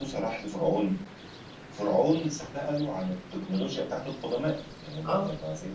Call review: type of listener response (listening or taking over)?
listening